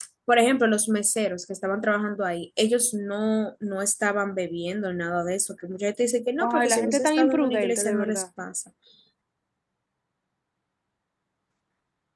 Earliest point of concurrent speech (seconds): 6 s

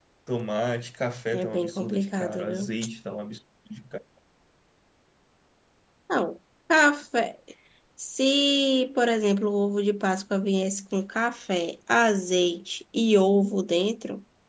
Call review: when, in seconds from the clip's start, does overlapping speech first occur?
1 s

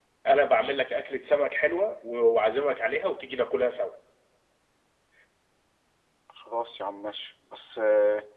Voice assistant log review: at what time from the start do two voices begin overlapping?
none

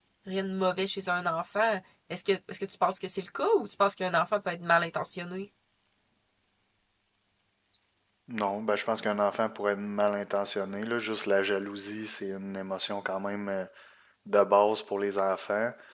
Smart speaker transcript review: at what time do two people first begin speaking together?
none

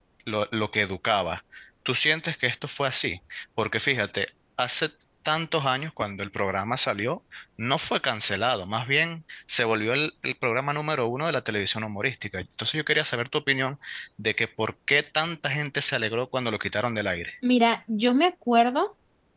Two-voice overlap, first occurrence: none

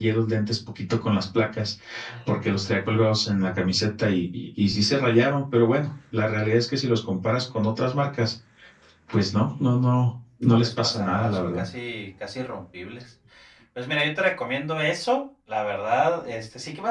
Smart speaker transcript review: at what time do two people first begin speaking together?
10 s

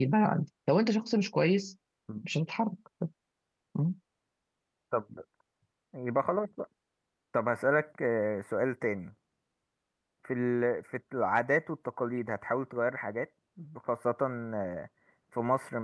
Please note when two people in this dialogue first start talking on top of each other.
none

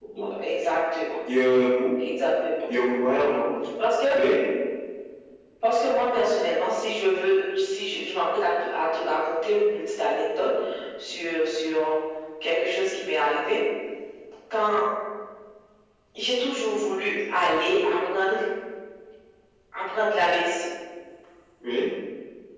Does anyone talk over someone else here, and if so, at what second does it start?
none

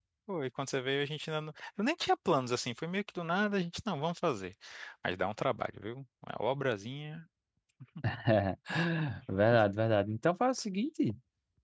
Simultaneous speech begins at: none

